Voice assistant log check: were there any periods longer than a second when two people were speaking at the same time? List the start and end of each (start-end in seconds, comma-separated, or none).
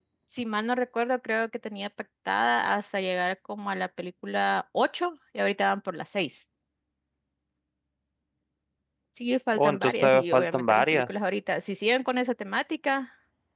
9.6-11.1